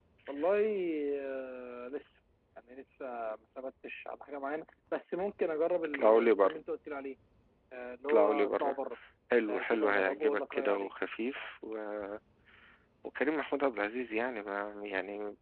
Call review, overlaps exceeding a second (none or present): present